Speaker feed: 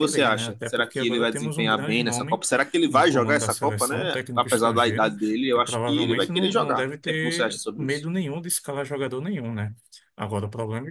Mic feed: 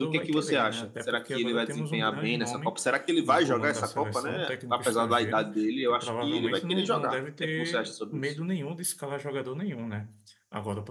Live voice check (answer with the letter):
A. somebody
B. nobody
B